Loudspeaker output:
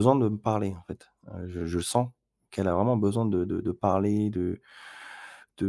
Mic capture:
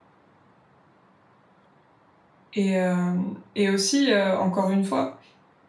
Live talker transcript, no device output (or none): et hem et aussi, heu, encore une fois,